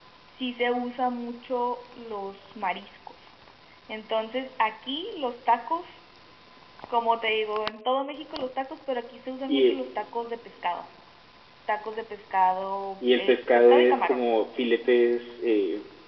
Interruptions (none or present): present